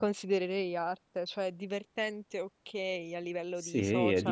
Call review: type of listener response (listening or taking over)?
taking over